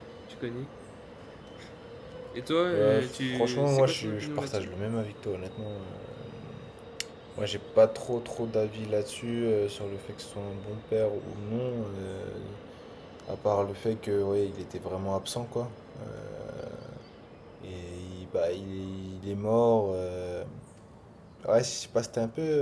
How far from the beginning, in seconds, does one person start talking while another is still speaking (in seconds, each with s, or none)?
2.7 s